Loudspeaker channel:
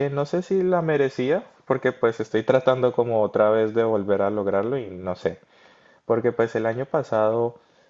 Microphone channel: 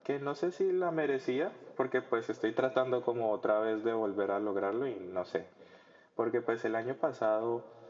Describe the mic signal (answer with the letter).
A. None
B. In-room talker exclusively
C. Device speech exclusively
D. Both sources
C